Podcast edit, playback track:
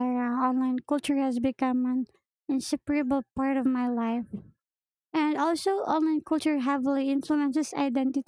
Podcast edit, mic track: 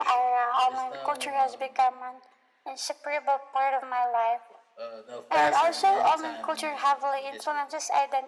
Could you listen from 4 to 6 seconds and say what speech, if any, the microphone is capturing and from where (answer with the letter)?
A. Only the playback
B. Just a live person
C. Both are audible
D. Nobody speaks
C